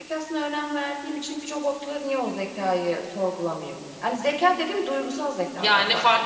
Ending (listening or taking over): taking over